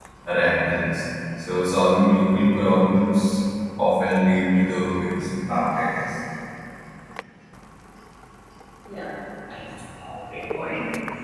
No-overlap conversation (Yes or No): Yes